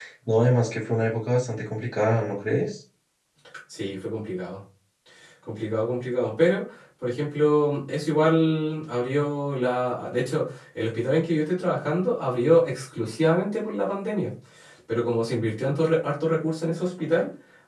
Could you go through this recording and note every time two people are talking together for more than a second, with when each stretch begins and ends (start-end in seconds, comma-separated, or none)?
none